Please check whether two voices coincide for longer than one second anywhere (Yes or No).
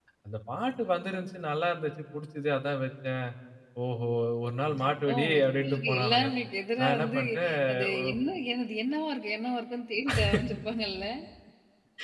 Yes